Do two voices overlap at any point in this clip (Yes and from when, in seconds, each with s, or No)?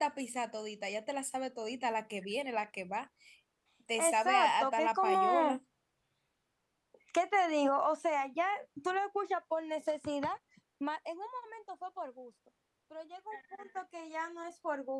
Yes, from 4.0 s